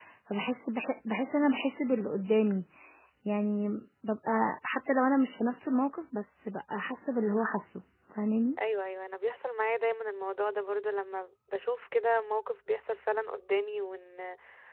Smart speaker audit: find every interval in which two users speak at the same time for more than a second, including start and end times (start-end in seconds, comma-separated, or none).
none